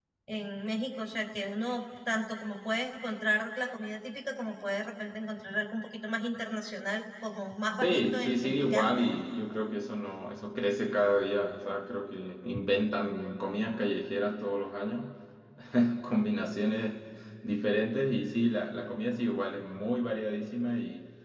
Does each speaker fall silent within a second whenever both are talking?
No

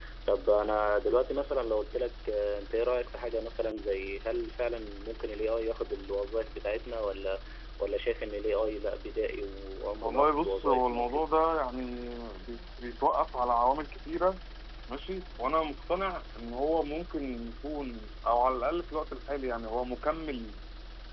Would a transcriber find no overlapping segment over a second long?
No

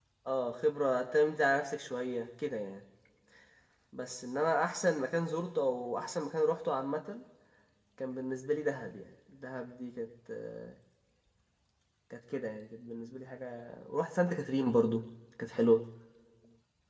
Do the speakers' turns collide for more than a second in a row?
No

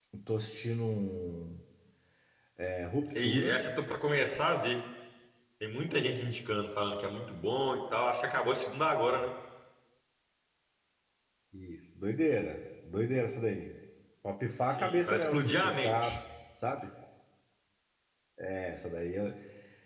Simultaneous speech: Yes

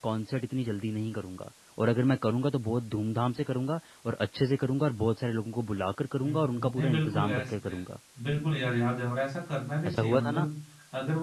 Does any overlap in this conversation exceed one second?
Yes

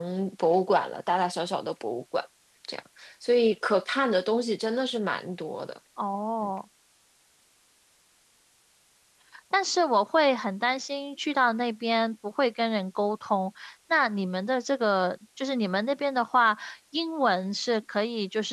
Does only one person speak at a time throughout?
Yes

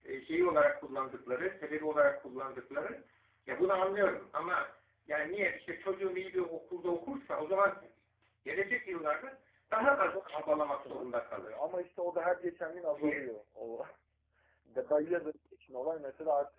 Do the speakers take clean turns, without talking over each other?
No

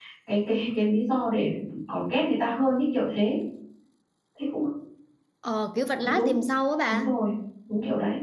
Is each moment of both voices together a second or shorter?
Yes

